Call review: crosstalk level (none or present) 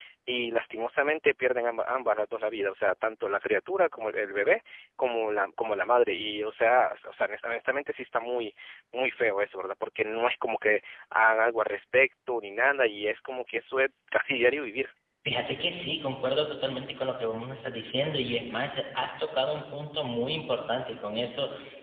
none